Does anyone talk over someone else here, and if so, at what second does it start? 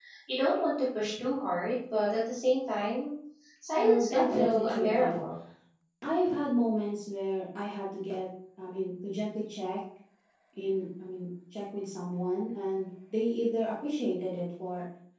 3.8 s

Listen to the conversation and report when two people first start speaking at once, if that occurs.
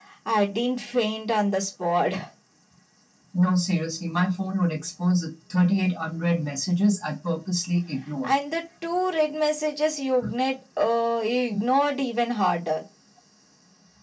none

